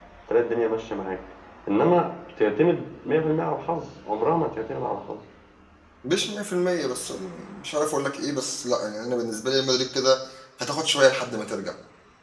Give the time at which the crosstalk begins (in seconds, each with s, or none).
none